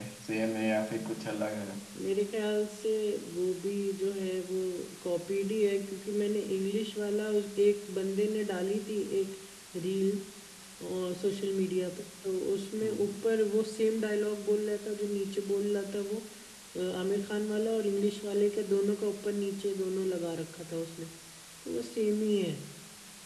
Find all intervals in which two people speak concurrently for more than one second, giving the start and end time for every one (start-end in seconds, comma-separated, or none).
none